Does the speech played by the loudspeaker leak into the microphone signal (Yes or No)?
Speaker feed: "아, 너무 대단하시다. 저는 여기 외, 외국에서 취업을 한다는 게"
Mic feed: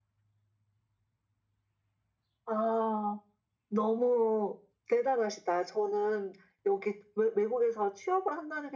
Yes